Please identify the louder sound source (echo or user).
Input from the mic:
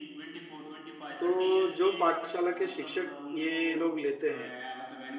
user